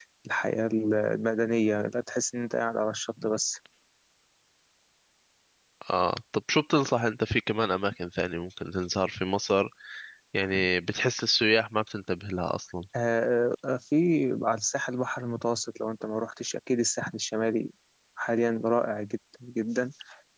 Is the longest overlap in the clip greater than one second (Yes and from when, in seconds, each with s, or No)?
No